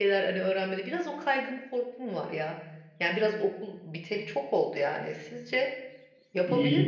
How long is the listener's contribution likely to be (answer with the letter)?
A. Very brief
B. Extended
B